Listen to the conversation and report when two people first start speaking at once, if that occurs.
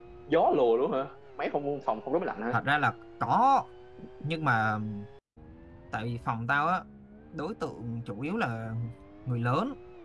none

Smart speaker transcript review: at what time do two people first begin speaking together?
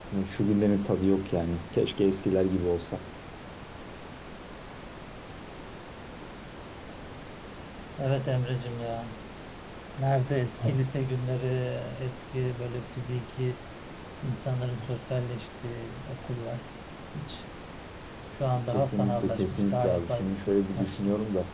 18.7 s

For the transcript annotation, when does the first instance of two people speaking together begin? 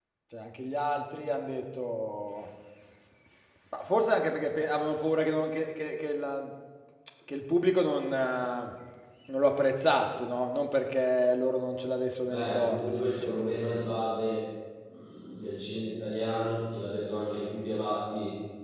12.3 s

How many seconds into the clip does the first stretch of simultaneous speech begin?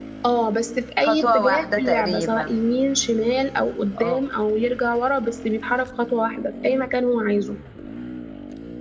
1.0 s

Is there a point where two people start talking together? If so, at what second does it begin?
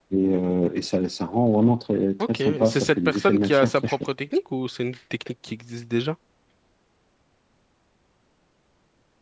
2.2 s

